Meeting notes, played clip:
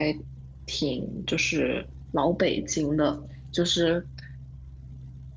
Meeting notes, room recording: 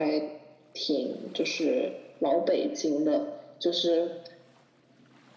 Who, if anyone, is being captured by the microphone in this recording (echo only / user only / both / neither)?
echo only